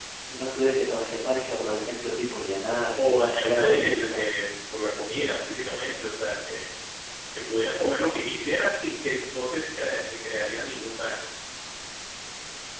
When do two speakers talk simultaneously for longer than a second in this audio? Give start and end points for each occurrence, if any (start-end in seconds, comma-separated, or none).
3.0-4.2